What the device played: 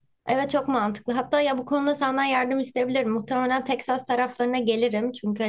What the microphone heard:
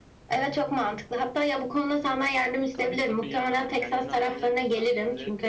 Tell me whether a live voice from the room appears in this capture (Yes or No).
Yes